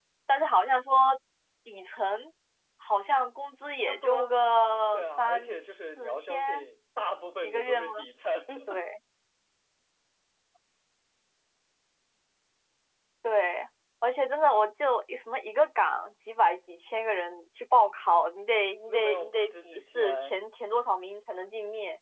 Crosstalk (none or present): present